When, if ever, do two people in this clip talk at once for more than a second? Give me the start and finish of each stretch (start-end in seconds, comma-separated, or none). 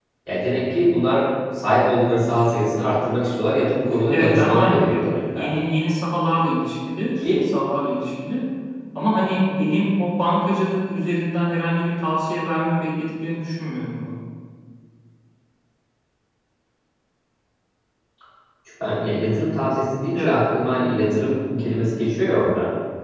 4.1-5.5